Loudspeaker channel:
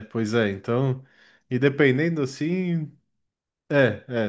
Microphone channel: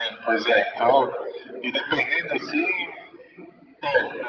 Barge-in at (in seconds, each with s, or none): none